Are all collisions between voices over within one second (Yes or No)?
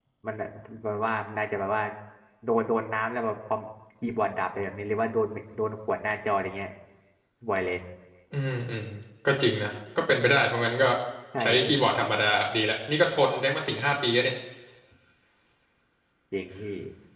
Yes